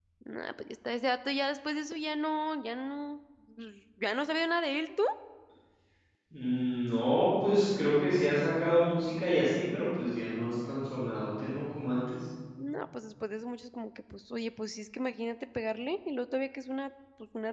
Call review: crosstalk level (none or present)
none